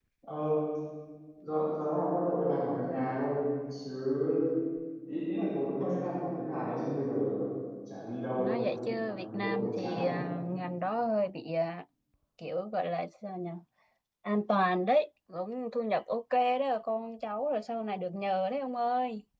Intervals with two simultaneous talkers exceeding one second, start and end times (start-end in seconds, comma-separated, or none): 8.4-10.1